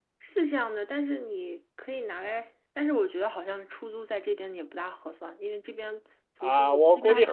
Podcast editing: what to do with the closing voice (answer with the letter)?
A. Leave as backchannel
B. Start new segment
B